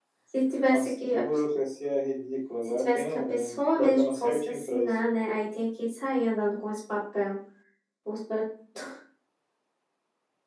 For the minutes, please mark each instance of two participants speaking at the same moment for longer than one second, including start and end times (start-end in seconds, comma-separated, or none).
2.6-4.9